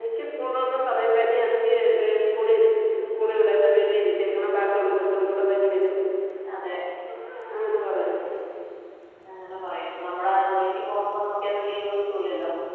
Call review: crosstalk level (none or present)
none